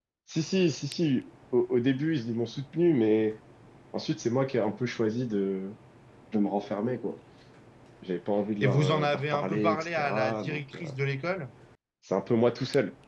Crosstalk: present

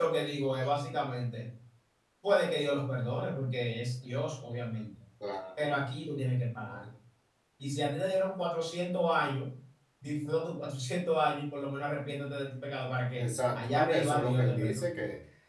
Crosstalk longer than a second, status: present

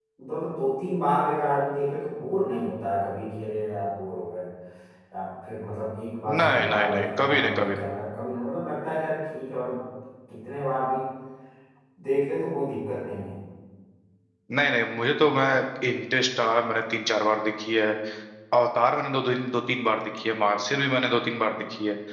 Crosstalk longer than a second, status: present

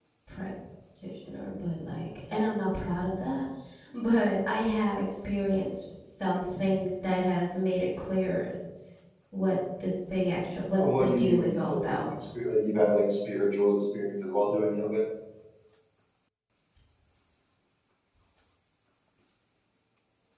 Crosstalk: present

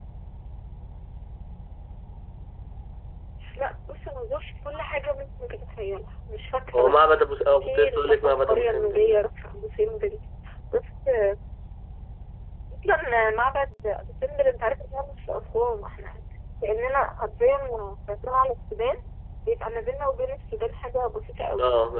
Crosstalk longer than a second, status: present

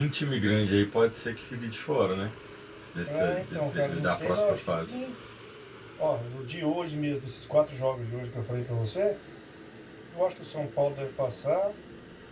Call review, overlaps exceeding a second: present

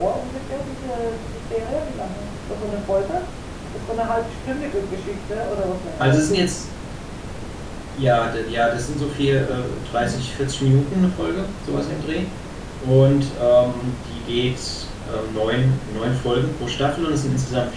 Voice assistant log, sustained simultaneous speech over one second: none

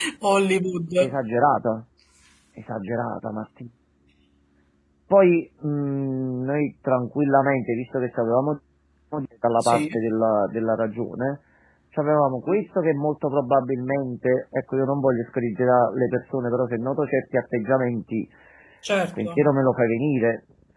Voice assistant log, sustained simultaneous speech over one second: none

